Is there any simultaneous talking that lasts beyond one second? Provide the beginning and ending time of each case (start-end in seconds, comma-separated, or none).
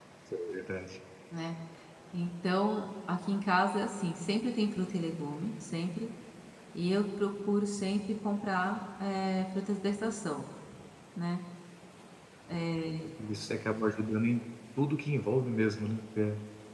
none